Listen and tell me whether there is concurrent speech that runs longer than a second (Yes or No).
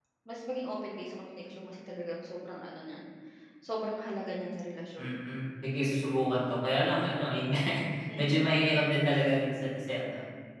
No